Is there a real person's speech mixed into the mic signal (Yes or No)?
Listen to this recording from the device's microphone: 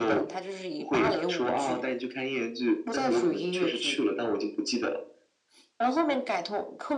No